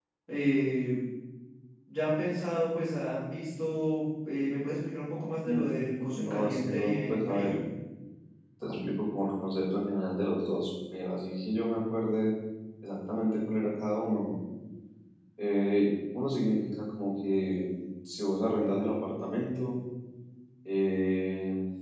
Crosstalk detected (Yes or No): Yes